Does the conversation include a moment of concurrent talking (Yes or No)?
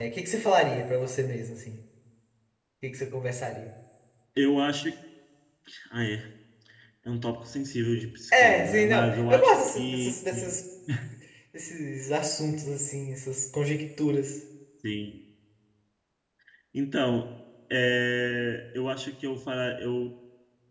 Yes